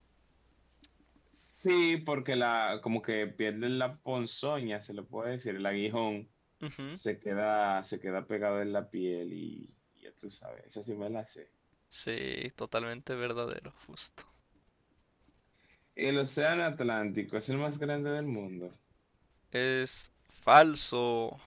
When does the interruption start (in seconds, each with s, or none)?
none